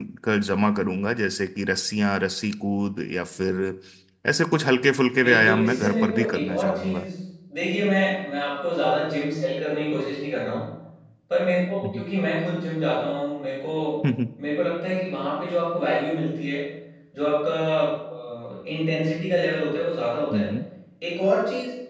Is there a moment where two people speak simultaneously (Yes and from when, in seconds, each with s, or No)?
Yes, from 5.2 s